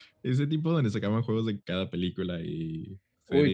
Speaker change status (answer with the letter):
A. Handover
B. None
A